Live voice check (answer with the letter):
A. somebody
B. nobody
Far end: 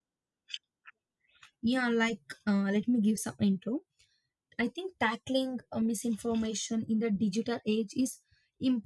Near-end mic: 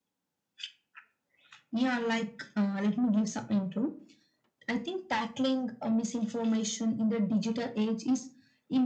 B